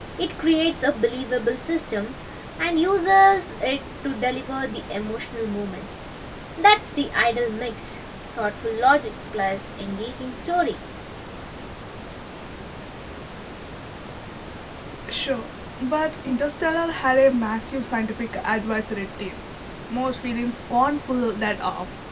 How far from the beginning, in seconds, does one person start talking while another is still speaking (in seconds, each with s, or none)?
none